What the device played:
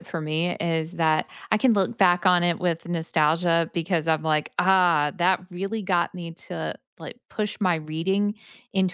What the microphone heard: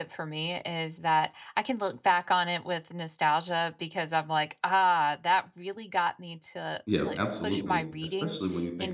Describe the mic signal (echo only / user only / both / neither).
both